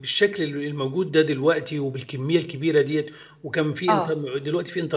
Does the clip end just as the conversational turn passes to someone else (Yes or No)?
No